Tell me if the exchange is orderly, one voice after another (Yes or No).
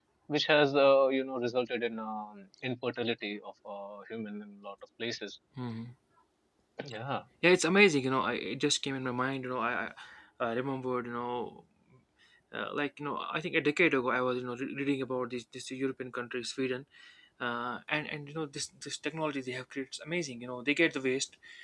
Yes